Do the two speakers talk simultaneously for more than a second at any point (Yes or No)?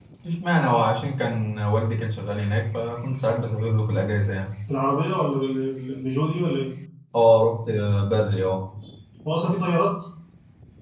No